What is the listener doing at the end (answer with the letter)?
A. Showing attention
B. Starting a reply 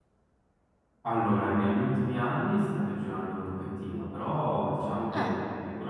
A